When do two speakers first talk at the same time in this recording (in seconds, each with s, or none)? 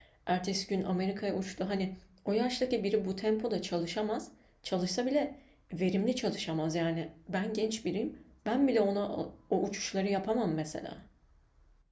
none